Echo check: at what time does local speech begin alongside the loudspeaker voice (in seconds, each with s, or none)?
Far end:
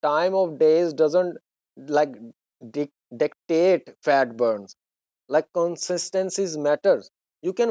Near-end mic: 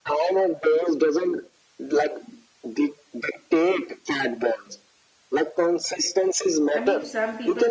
6.7 s